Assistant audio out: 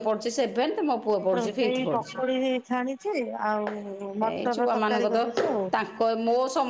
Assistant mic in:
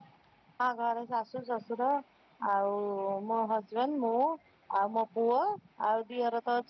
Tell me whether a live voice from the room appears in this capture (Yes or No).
Yes